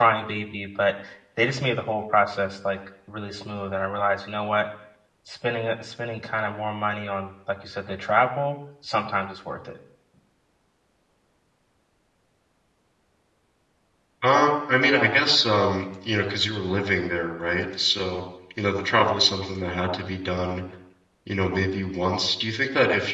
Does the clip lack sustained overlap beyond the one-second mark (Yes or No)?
Yes